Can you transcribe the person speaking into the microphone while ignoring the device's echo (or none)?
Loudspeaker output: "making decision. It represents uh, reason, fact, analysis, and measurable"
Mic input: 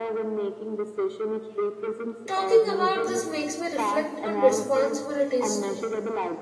Talking about this makes me reflect on responsibilities too.